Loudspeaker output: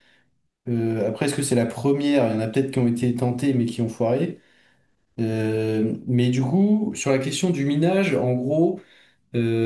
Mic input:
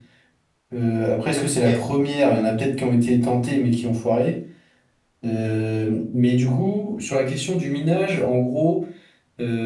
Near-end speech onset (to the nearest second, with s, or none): 1 s